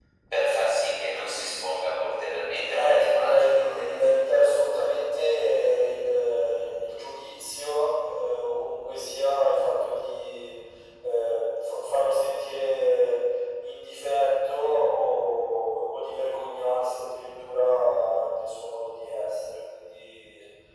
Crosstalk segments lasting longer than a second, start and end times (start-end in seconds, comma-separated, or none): 2.7-4.5